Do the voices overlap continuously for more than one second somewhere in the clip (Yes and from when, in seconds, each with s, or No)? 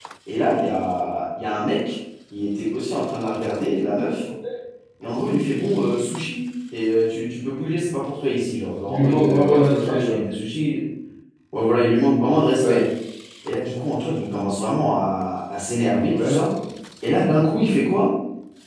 Yes, from 8.9 s